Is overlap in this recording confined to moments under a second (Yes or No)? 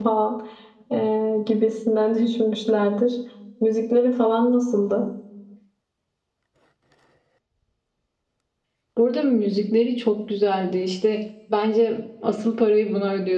Yes